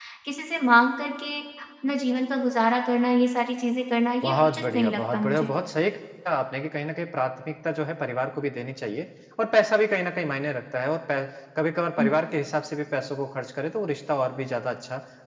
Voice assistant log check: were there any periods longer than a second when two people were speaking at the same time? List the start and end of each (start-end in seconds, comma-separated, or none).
4.2-5.5